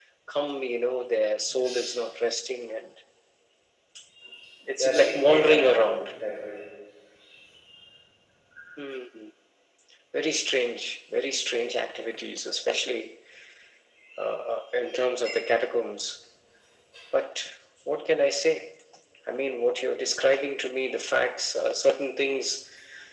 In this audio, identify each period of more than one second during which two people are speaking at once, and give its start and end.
4.8-6.1

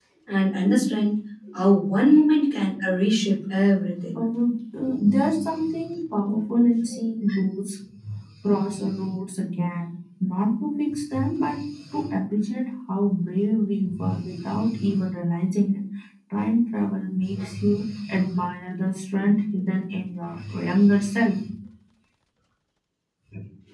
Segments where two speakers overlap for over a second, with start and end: none

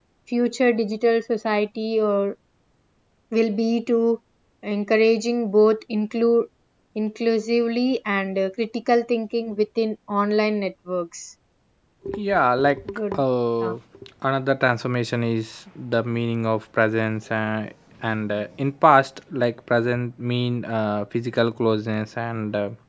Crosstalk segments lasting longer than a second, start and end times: none

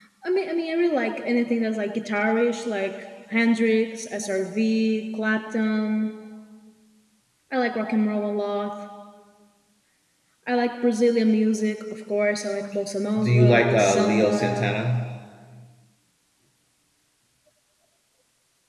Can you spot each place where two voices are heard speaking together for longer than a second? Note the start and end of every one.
13.2-14.7

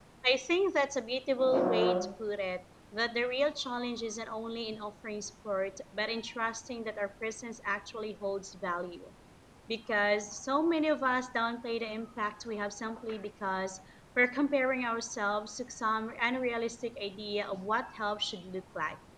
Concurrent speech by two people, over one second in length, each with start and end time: none

